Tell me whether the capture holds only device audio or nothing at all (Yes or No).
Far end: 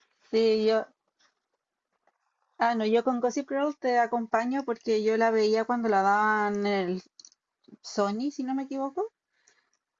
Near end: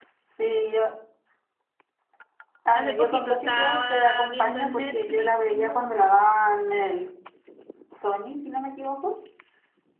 No